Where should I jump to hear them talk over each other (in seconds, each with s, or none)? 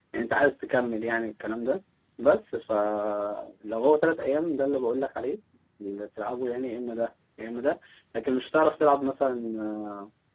none